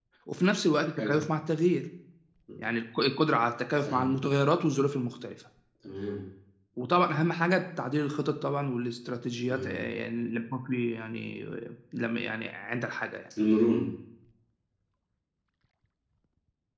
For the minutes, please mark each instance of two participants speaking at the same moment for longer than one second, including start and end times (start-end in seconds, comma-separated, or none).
none